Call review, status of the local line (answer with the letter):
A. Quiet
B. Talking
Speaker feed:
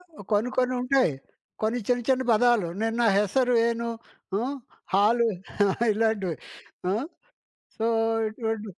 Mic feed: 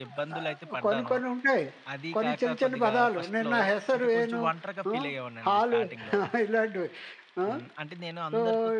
B